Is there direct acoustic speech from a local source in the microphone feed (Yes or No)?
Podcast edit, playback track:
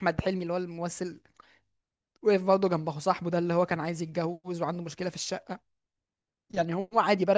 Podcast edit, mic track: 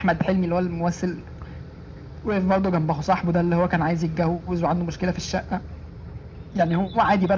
No